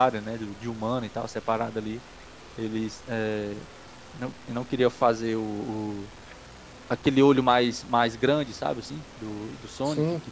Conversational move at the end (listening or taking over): listening